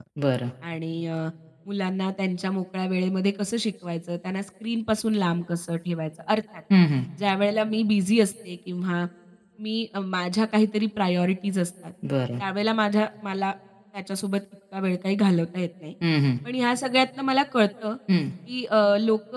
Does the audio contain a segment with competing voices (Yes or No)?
No